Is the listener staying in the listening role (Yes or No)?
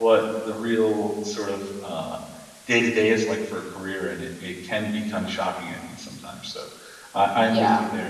Yes